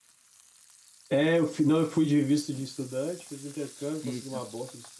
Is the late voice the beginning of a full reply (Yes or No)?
No